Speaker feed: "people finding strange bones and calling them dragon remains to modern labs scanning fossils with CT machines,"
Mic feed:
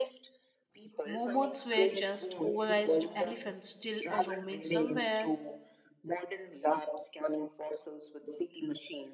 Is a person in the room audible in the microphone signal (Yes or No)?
Yes